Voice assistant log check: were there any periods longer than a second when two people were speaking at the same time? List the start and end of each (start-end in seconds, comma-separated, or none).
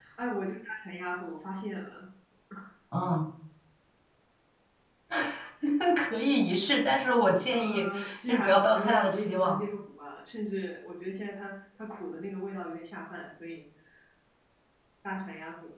7.5-9.6